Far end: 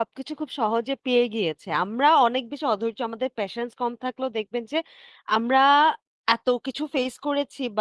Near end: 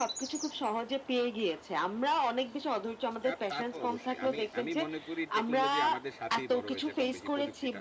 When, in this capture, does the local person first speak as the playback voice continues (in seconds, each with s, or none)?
3.2 s